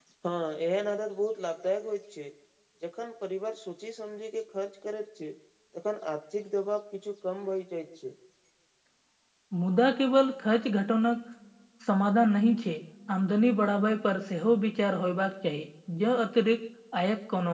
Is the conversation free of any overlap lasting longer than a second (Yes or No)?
Yes